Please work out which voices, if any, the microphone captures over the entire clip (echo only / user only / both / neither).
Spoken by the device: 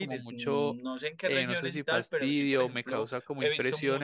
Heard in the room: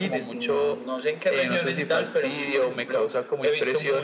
echo only